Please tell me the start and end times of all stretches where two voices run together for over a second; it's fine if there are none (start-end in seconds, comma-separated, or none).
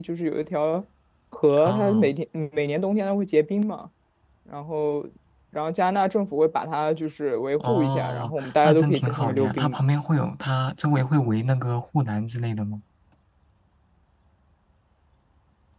7.6-9.9